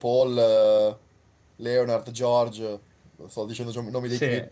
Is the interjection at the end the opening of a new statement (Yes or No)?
Yes